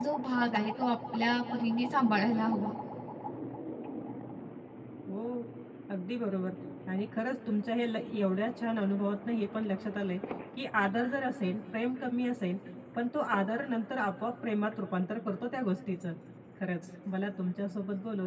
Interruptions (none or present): none